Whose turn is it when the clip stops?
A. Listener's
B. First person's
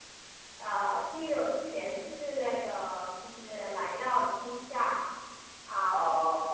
B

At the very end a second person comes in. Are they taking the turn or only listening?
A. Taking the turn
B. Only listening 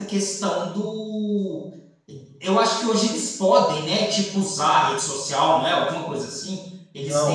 A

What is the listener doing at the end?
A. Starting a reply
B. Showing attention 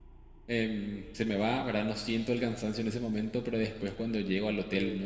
B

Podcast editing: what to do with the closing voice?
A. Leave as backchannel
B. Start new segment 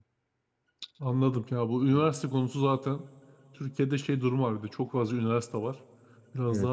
A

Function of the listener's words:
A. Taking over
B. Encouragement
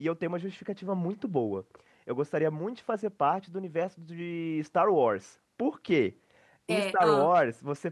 B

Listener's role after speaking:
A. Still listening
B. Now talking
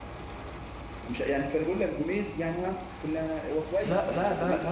B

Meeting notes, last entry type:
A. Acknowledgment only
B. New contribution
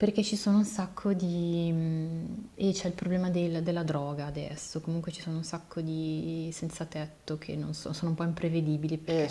B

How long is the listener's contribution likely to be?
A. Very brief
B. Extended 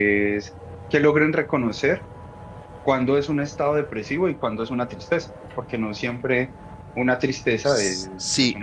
B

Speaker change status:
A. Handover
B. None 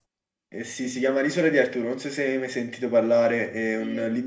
B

